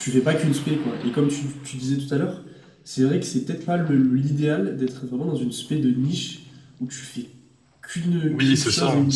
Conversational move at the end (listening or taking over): taking over